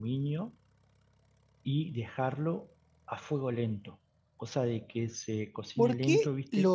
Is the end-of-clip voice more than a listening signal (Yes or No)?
Yes